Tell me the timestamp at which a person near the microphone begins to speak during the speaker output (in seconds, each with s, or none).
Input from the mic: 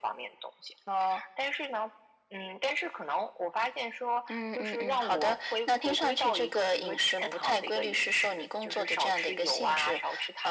none